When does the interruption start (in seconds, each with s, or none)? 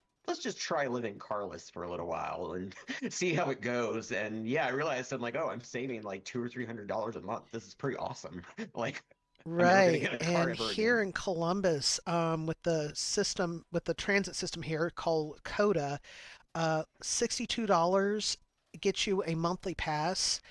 9.6 s